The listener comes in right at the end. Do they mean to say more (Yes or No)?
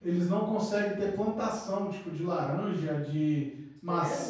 Yes